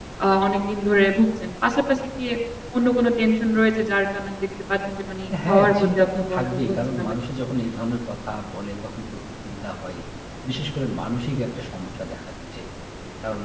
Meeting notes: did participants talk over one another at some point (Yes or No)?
Yes